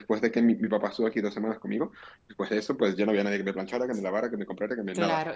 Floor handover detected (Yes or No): Yes